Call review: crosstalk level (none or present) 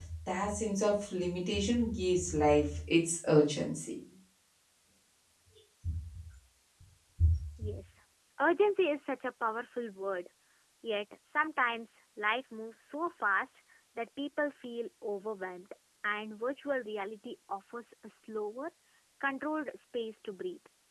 none